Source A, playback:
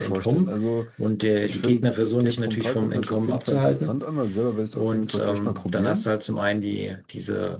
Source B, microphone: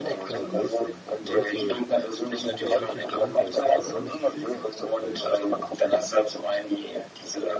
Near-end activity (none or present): present